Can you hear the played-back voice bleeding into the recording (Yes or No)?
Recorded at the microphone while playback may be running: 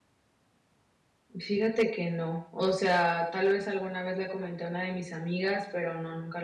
No